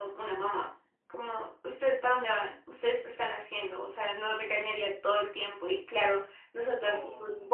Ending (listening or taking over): listening